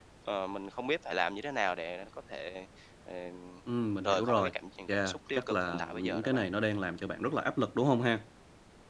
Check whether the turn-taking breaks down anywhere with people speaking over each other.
Yes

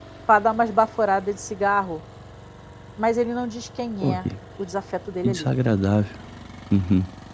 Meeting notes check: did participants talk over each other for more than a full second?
No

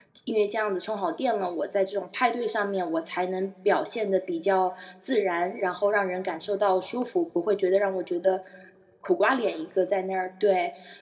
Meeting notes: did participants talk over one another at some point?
No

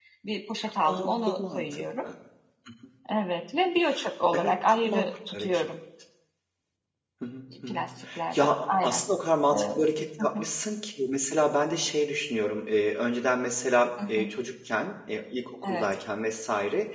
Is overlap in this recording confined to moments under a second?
No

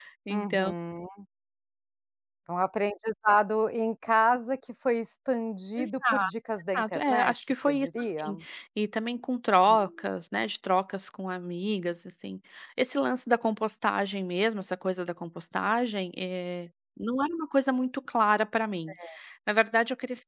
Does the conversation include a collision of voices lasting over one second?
Yes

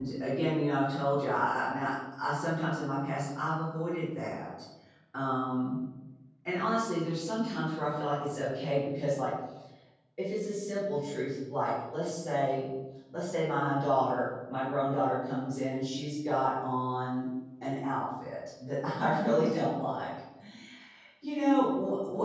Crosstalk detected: No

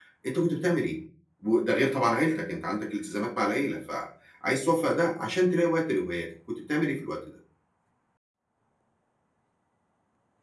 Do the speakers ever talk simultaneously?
No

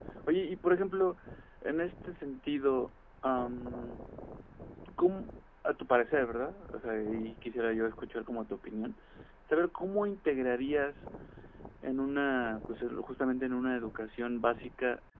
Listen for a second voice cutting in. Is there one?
No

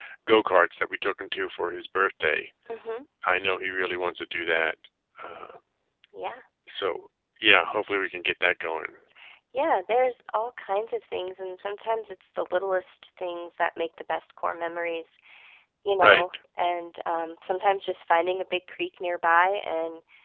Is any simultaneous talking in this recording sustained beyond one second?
No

